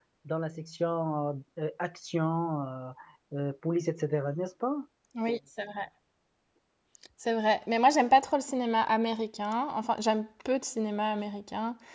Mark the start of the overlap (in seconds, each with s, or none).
none